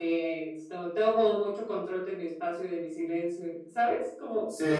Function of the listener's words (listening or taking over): taking over